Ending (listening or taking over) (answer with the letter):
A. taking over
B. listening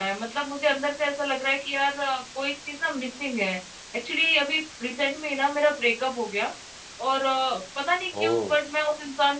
B